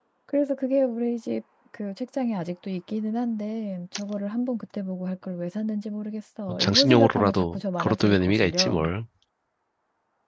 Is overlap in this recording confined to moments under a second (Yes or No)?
No